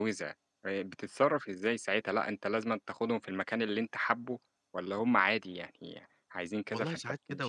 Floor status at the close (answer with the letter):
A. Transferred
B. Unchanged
A